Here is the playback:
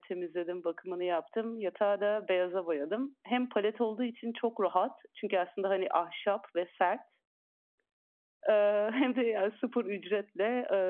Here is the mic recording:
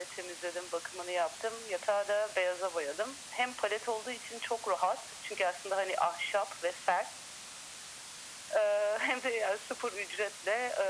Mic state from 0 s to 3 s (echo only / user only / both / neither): echo only